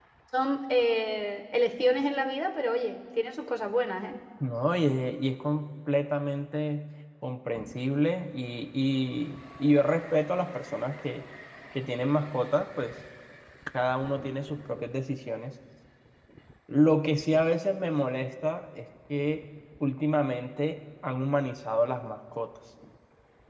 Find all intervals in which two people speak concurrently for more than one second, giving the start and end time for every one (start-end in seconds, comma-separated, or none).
none